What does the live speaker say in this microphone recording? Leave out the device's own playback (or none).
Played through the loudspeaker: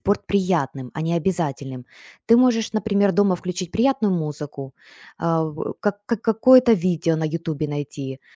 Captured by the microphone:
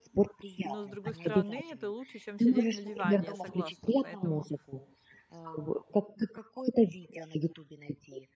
но, с другой стороны, это лучше, чем сидеть на диване, я согласна. Поэтому,